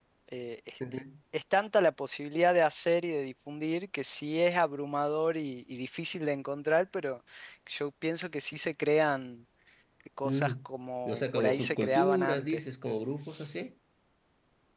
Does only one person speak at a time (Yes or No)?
No